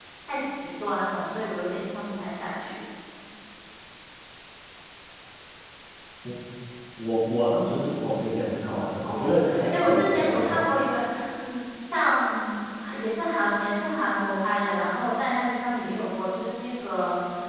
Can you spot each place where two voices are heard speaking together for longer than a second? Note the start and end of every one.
9.0-10.6

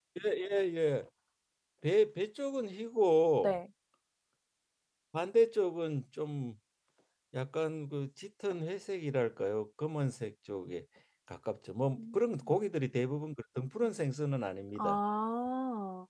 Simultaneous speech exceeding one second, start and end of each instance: none

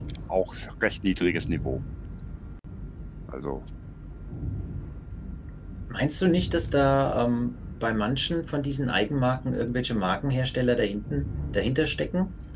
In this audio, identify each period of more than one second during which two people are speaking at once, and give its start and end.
none

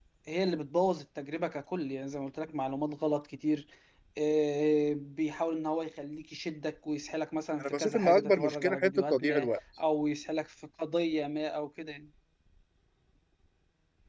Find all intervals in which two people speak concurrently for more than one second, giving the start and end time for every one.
7.6-9.5

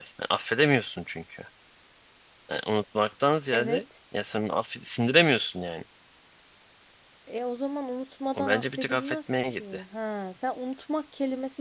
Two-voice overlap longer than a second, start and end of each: 8.4-9.8

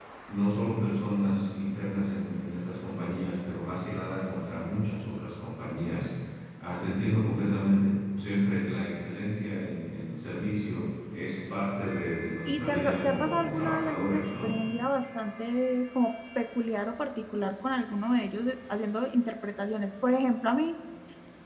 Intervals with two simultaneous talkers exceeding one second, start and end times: 12.5-14.5

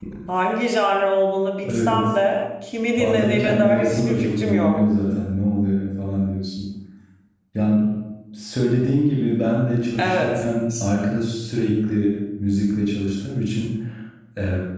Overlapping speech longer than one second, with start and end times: 3.0-4.8

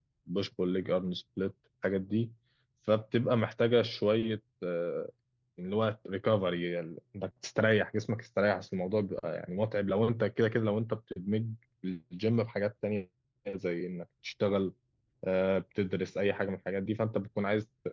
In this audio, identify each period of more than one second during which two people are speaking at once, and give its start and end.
none

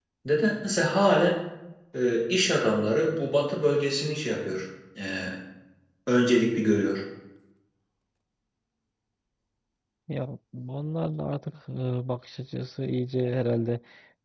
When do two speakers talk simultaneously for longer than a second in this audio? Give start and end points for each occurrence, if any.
none

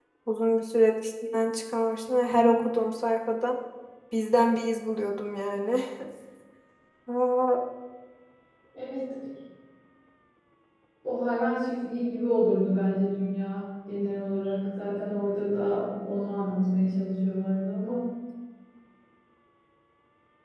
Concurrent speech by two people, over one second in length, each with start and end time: none

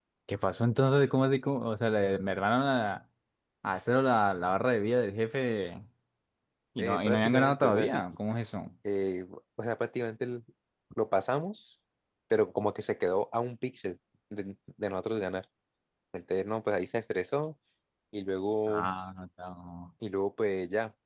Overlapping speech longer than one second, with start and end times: 6.8-8.0

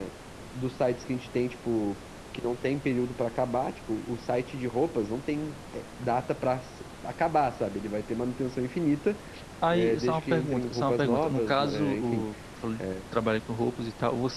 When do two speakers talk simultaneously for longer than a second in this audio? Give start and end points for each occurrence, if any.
9.7-12.2

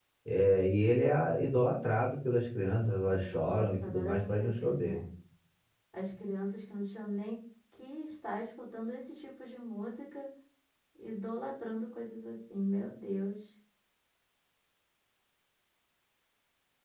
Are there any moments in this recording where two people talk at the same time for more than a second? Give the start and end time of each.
3.2-5.0

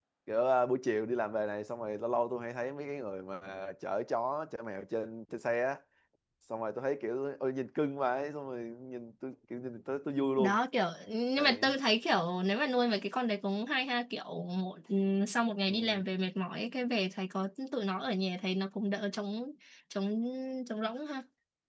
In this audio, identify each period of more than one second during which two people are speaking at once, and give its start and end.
none

